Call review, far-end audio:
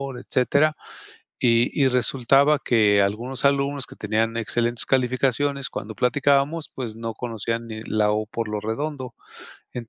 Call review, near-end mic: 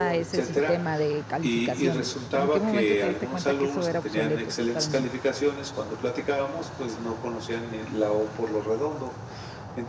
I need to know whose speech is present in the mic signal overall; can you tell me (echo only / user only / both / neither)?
both